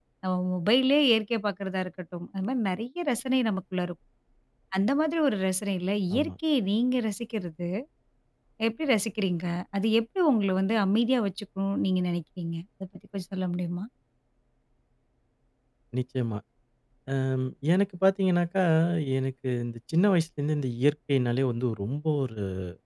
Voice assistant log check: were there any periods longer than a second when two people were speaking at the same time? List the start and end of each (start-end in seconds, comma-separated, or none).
none